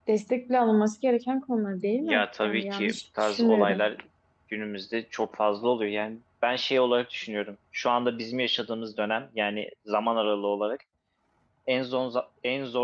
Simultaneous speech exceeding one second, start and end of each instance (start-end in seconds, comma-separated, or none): 2.0-3.9